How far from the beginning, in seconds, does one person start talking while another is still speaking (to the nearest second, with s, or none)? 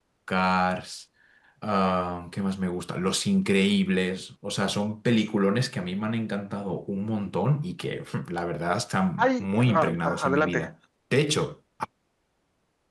9 s